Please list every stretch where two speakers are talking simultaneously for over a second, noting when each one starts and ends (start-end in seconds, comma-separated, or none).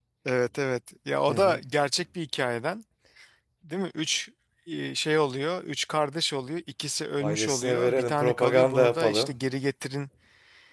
7.2-9.3